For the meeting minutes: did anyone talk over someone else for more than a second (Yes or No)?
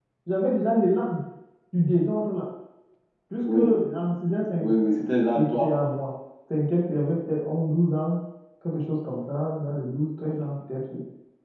No